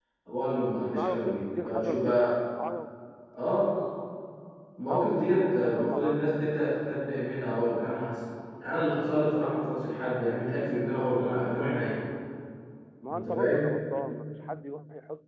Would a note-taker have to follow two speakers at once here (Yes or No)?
Yes